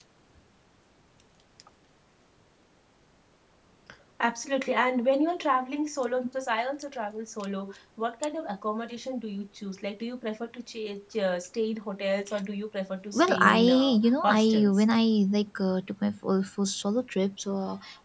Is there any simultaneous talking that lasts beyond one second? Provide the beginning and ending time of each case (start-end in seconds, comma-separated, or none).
13.1-14.8